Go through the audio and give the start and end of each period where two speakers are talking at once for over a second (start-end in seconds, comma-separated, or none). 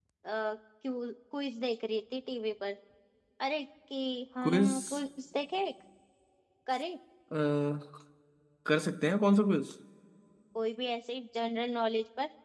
none